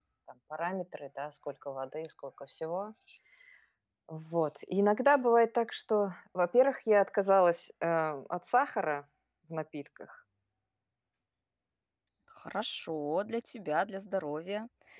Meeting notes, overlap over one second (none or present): none